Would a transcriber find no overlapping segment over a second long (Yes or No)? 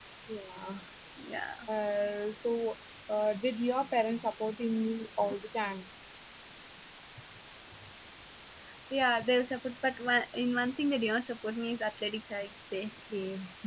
Yes